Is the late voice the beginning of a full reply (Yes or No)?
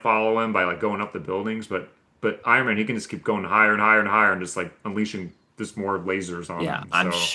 Yes